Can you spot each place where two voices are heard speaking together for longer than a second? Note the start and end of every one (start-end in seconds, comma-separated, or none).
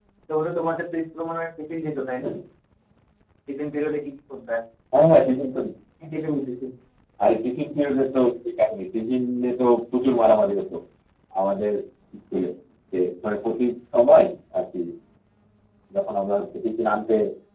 none